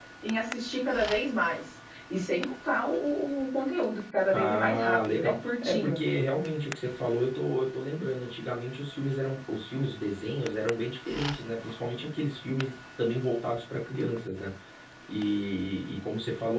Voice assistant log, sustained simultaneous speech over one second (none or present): present